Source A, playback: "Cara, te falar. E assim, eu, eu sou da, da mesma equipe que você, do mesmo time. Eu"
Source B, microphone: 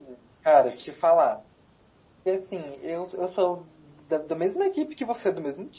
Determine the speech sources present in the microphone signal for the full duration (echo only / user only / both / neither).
echo only